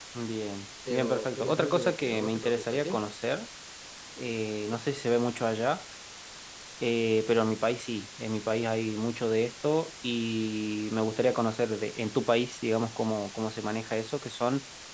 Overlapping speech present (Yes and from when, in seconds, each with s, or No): Yes, from 0.9 s